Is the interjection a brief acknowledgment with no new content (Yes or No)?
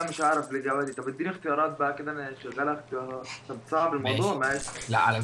No